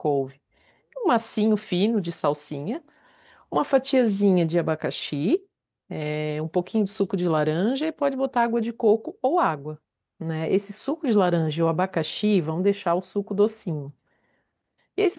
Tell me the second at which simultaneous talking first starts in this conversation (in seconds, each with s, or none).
none